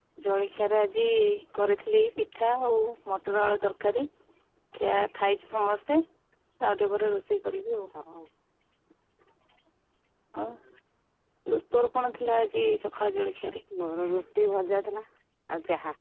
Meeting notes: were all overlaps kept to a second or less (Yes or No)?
Yes